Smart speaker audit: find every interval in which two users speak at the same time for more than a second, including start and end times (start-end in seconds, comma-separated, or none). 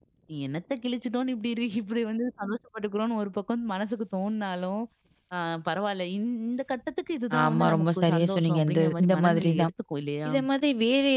7.4-9.7